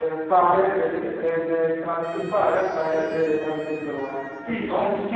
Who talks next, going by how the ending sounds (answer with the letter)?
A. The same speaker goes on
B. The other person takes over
B